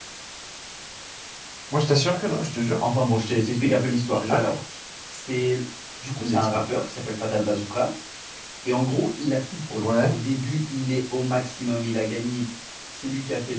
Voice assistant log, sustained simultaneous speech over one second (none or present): none